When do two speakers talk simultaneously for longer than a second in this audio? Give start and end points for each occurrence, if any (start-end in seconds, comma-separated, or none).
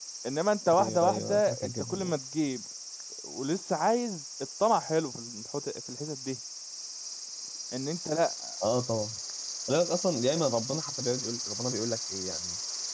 0.8-2.1